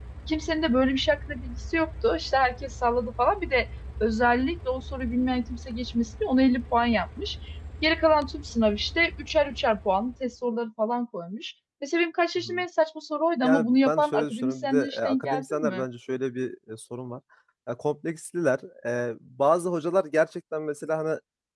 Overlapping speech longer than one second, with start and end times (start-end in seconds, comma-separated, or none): 13.4-15.8